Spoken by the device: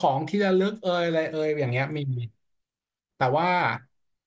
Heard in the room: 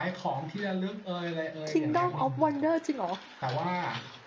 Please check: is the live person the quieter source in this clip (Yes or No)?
No